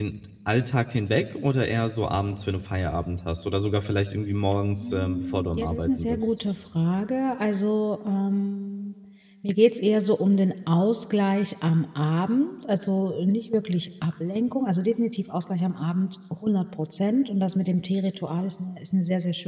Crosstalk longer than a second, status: present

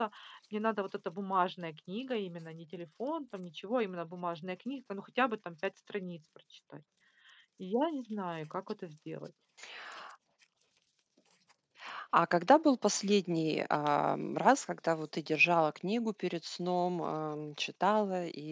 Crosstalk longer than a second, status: none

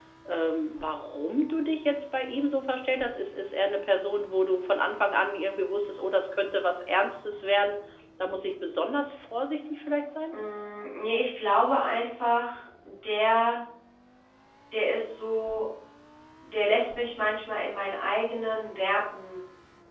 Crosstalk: none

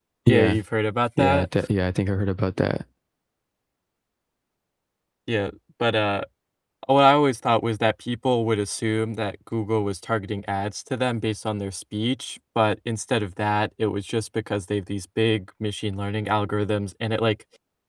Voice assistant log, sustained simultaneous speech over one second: none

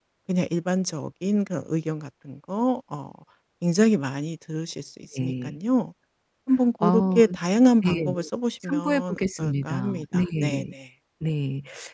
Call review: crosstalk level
present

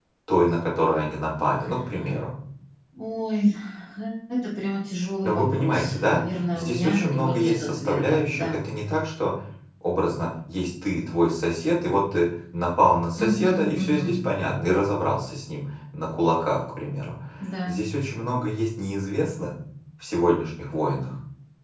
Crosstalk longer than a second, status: present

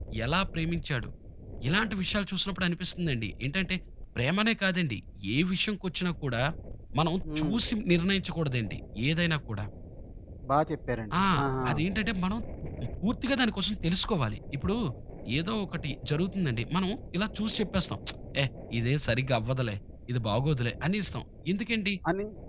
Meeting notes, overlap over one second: none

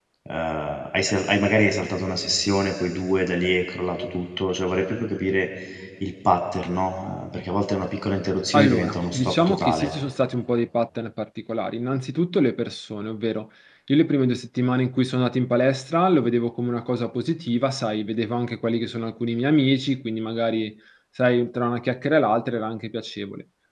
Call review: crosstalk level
present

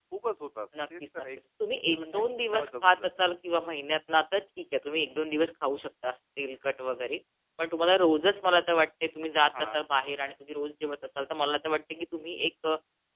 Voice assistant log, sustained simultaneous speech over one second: present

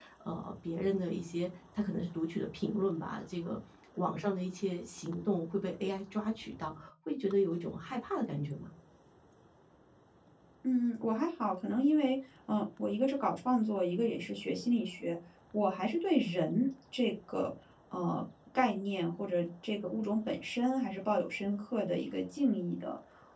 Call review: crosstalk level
none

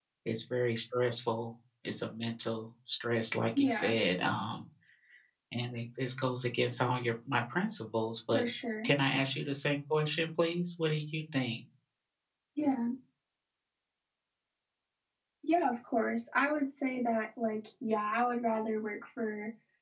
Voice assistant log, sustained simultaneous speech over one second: none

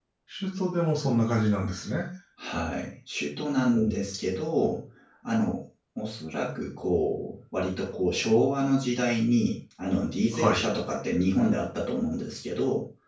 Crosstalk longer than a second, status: none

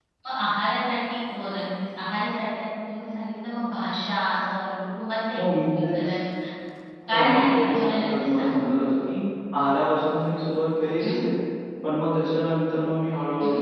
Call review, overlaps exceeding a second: present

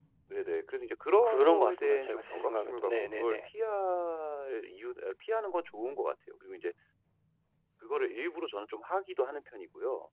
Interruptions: present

